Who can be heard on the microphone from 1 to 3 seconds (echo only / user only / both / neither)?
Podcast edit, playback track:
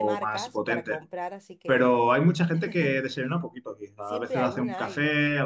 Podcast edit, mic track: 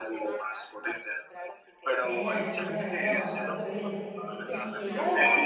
both